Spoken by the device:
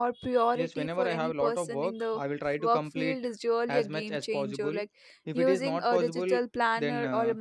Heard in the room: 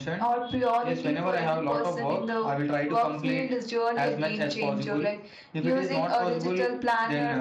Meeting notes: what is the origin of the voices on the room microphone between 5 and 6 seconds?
echo only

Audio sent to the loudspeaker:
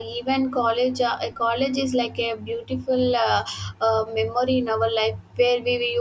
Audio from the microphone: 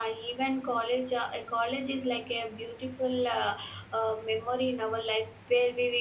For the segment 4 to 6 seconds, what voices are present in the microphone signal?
echo only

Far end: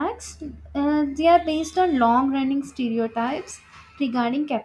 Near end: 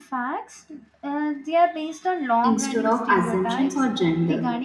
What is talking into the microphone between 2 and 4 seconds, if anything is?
both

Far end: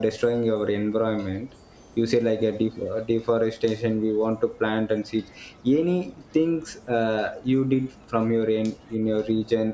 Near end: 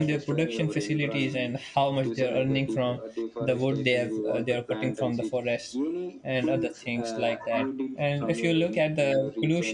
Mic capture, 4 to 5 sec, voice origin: both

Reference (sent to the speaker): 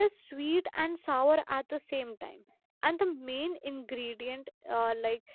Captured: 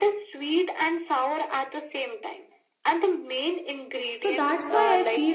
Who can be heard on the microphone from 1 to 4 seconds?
echo only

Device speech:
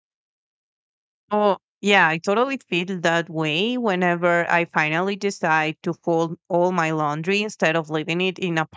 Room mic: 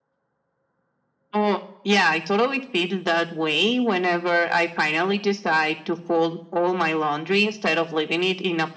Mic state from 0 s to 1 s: neither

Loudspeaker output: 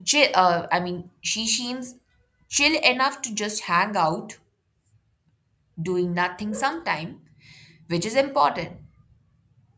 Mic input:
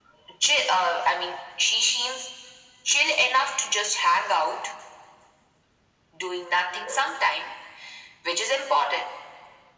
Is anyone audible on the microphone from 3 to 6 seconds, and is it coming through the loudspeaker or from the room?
echo only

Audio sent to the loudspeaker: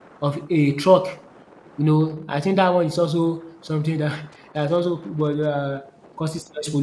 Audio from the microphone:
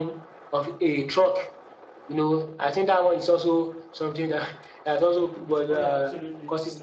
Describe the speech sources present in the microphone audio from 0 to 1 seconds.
echo only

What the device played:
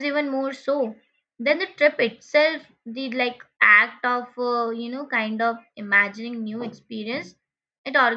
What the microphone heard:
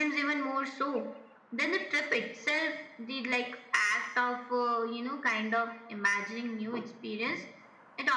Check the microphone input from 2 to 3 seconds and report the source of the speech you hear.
echo only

